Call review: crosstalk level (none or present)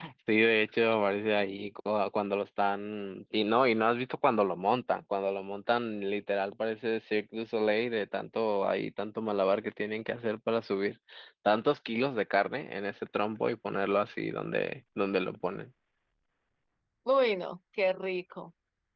none